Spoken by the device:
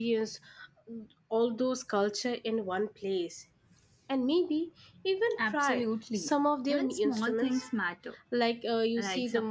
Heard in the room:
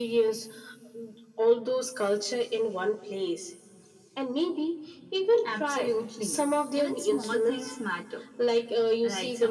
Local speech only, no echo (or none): none